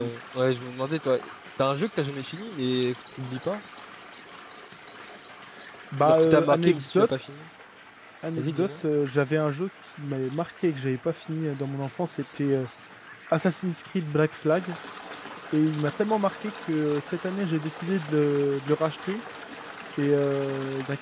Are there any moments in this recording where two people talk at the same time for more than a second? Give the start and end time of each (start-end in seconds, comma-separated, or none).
6.0-7.3